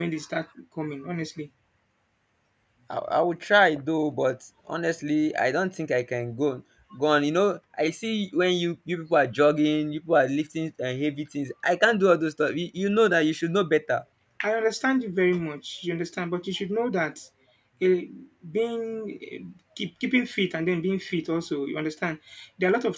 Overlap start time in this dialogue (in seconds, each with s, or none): none